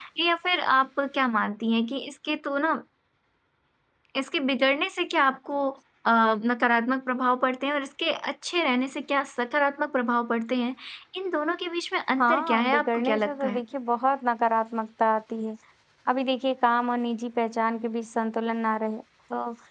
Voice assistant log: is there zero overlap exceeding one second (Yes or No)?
No